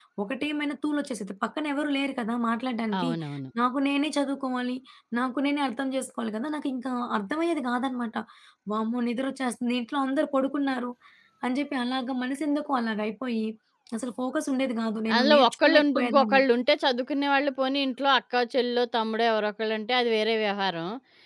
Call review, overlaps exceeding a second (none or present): present